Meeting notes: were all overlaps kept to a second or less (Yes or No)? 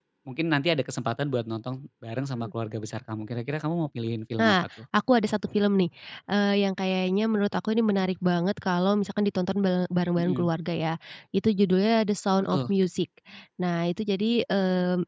Yes